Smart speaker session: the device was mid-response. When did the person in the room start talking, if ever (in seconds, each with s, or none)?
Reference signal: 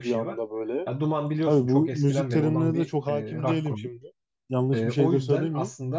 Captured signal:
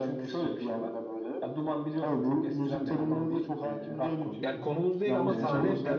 4.4 s